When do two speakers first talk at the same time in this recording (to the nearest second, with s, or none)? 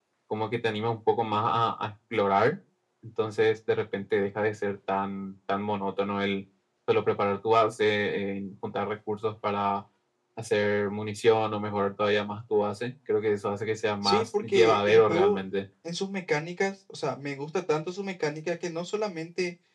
14 s